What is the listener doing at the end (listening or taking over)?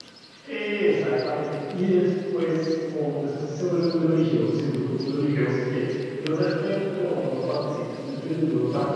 listening